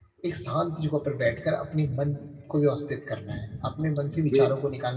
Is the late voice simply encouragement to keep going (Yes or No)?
Yes